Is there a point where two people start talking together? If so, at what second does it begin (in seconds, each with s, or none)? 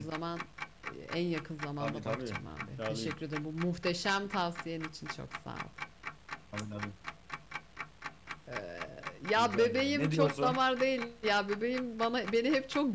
1.8 s